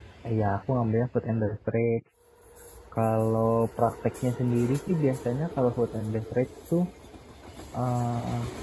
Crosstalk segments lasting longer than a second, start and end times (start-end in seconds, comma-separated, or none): none